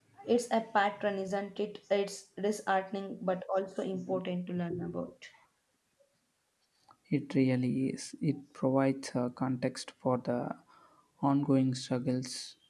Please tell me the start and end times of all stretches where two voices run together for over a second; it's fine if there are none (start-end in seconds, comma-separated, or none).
none